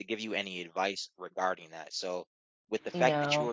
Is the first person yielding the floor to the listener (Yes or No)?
No